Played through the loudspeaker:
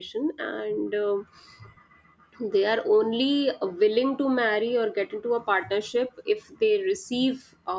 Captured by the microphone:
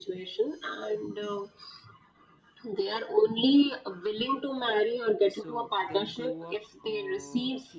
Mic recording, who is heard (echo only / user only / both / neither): both